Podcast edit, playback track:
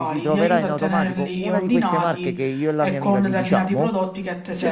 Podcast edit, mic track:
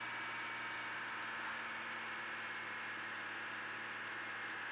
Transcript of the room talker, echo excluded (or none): none